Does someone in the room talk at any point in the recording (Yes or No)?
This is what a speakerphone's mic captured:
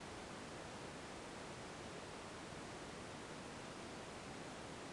No